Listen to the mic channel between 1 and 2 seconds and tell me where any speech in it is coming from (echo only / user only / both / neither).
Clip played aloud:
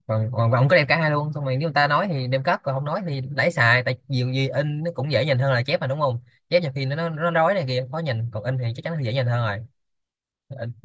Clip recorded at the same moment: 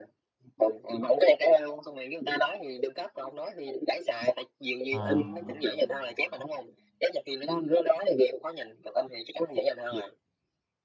echo only